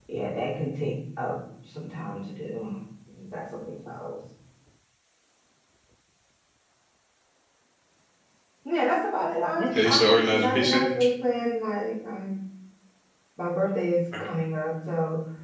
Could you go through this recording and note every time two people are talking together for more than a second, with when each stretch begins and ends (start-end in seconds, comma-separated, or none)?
9.6-10.9